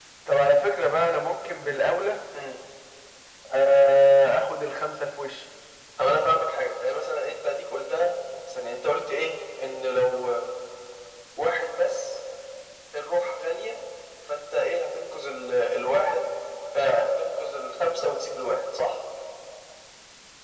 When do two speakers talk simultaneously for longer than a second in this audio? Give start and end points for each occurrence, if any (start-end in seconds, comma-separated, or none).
none